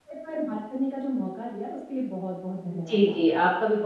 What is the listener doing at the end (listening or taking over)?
taking over